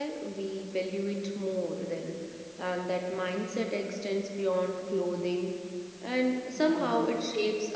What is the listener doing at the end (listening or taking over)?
listening